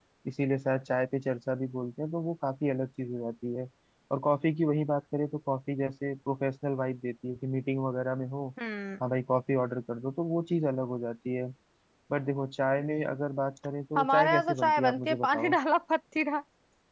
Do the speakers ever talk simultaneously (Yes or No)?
Yes